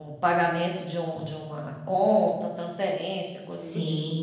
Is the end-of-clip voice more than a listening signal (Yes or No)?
Yes